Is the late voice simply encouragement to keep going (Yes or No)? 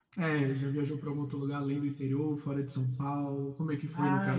No